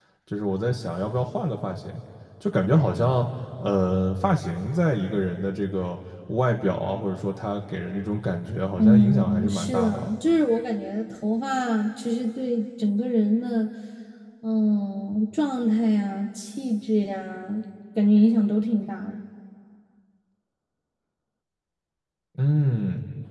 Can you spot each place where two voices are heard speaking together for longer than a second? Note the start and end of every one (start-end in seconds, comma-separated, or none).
8.8-10.1